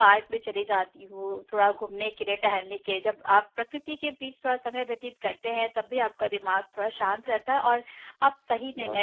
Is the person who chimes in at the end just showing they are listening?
Yes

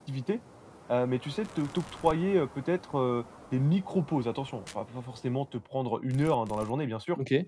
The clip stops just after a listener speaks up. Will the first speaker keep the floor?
Yes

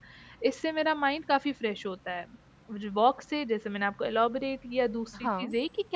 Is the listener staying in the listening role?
Yes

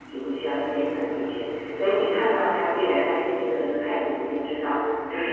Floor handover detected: No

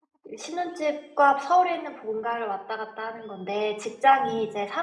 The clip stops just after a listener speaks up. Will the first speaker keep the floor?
Yes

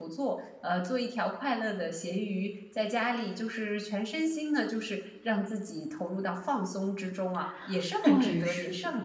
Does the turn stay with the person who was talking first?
No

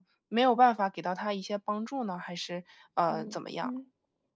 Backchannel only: No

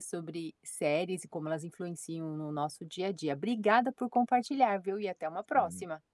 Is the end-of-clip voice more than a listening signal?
Yes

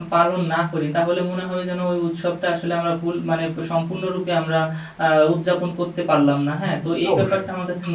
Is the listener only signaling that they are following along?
Yes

